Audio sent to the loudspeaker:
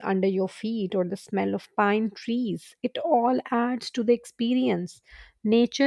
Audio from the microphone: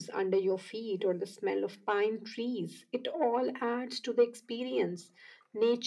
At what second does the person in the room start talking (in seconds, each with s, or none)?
none